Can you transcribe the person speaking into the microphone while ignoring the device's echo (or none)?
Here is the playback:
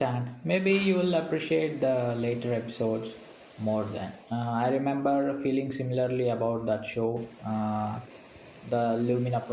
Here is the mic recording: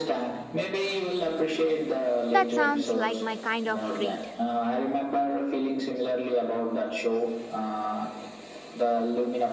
That sounds like my kind of read.